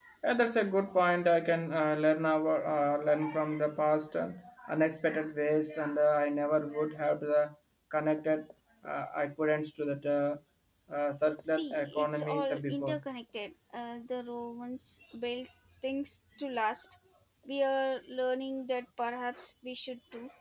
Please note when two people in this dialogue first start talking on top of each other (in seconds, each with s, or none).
11.4 s